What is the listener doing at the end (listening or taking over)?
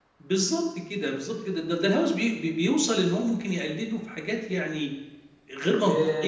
taking over